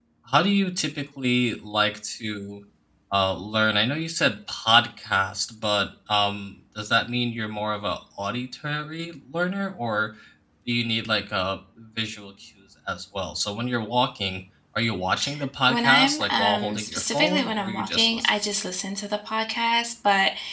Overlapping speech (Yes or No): Yes